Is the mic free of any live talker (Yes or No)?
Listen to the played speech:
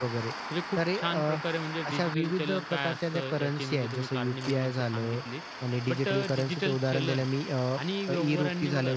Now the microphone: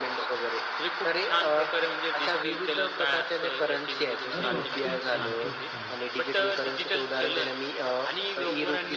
No